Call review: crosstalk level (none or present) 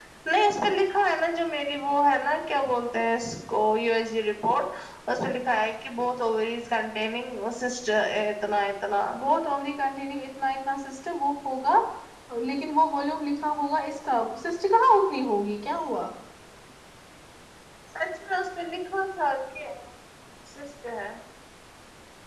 none